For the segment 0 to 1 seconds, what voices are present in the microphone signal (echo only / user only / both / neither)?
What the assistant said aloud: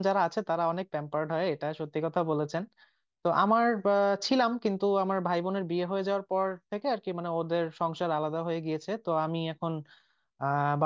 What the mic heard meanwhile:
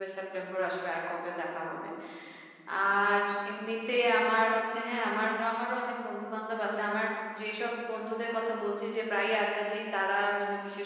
user only